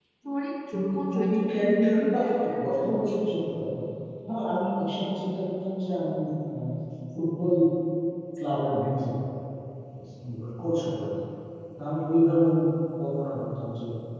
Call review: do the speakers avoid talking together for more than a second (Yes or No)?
No